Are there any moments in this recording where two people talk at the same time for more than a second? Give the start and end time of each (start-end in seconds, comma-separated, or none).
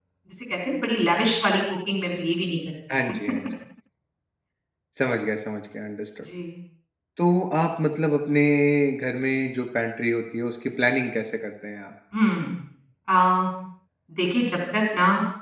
none